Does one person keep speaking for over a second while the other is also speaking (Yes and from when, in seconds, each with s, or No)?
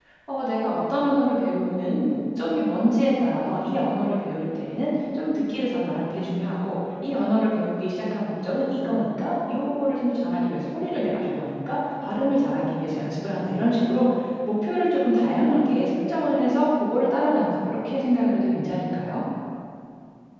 No